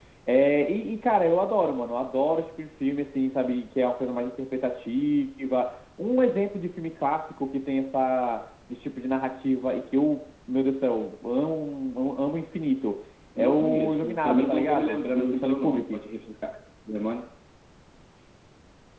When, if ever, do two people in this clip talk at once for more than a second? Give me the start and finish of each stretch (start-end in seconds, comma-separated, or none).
13.4-16.0